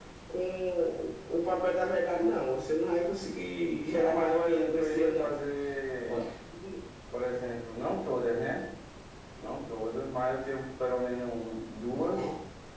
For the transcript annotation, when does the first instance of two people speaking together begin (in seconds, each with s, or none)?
3.9 s